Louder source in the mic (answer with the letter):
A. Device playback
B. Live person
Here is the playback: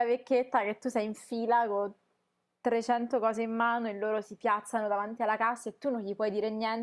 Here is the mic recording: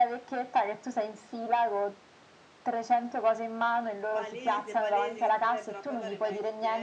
A